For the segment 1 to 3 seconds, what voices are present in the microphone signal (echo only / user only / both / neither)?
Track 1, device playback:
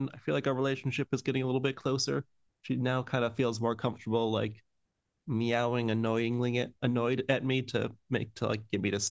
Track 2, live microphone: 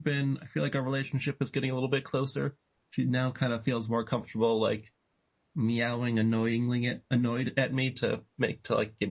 echo only